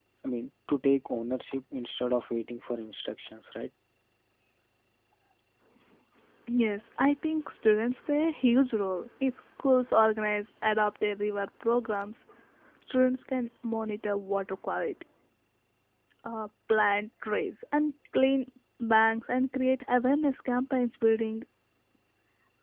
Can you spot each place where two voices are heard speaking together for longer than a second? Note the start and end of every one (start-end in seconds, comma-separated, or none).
none